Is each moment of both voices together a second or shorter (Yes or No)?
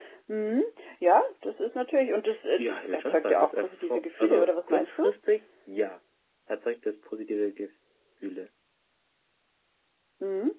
No